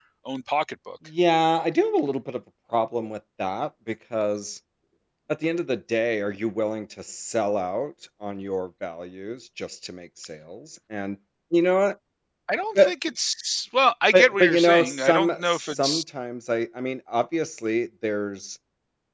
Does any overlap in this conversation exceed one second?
Yes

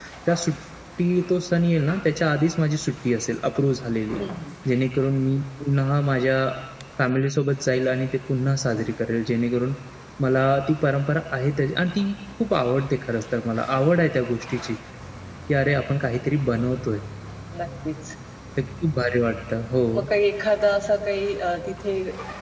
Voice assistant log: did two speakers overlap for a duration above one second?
No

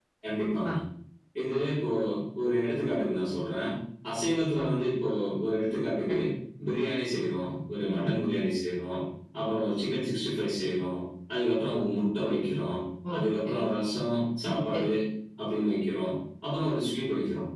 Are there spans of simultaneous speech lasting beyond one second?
No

